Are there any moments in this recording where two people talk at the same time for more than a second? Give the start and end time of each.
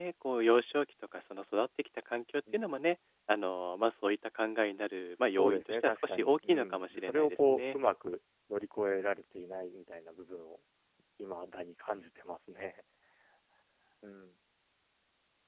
5.3-7.8

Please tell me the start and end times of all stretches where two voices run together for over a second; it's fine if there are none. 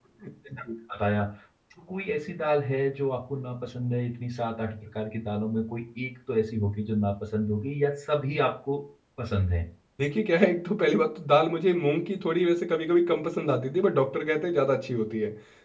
none

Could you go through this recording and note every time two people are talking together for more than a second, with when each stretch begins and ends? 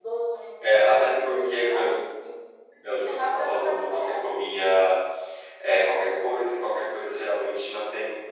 0.6-1.9, 2.9-4.2

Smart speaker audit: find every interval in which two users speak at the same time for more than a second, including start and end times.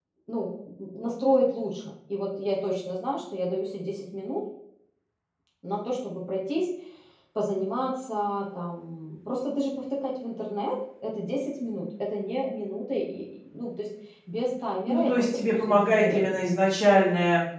14.9-16.5

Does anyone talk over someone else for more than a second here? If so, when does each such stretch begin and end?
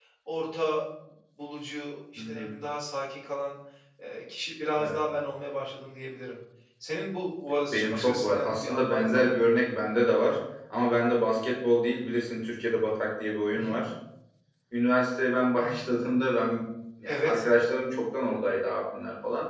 7.7-9.3

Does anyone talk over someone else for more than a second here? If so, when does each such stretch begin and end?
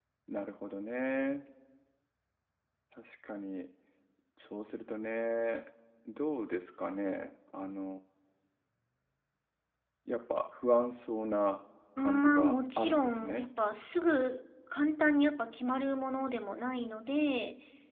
12.0-13.5

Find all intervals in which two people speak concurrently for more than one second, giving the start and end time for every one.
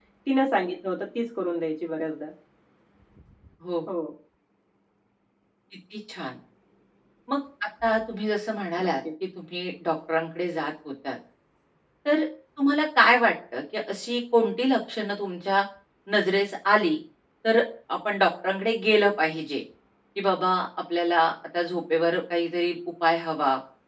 none

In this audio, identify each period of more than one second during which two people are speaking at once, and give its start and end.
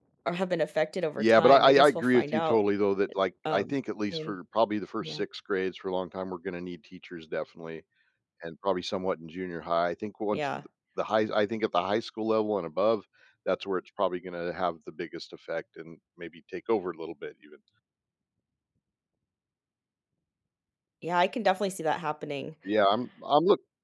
1.2-2.6

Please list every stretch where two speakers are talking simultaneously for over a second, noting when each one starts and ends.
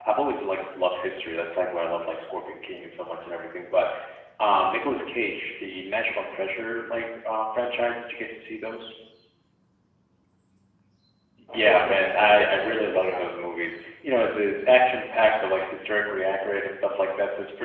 11.5-13.2

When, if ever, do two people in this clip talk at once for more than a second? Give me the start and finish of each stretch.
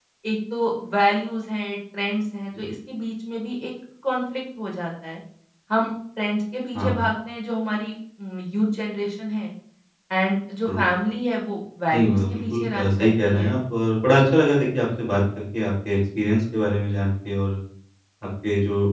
11.9-13.5

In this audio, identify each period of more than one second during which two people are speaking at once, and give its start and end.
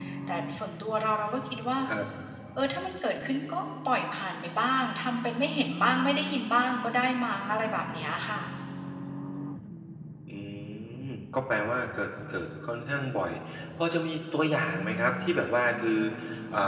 none

